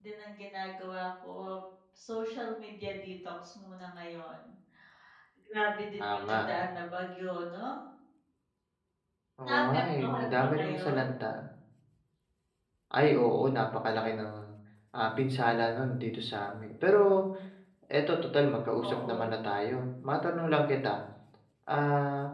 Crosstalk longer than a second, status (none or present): present